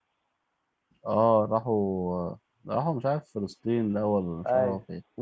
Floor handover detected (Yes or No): Yes